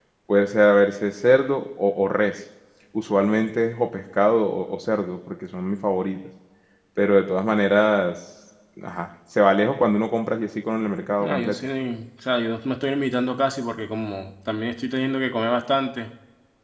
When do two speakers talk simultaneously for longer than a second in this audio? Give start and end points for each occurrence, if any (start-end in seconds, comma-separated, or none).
none